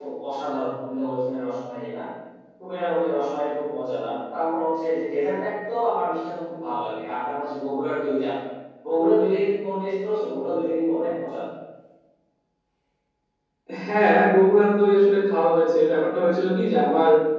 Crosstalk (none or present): none